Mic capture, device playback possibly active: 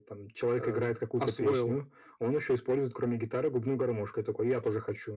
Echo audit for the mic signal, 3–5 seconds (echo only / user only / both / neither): echo only